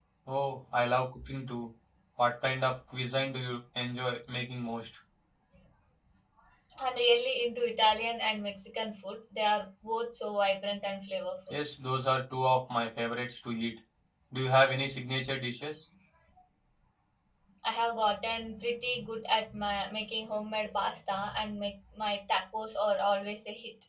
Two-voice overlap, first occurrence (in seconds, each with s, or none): none